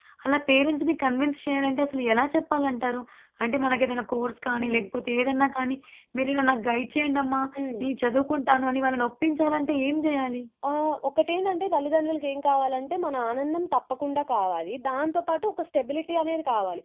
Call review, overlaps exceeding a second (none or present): none